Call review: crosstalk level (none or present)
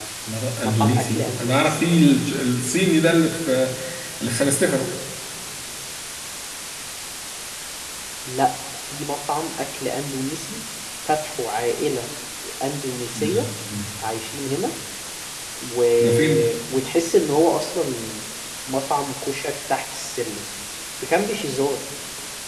present